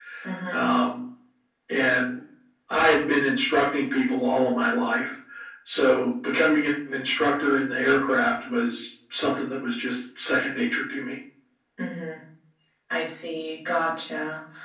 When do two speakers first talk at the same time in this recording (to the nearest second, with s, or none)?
none